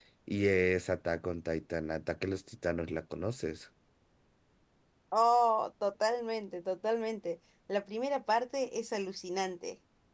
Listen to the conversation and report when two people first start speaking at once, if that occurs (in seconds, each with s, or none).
none